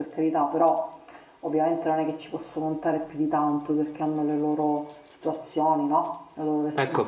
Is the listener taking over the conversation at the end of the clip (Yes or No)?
Yes